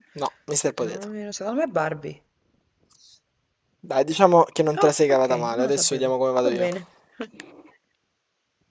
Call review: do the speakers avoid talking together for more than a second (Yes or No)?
No